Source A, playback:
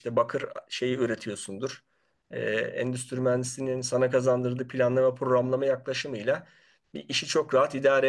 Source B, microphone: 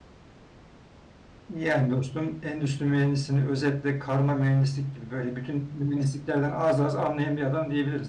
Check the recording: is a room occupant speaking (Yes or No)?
Yes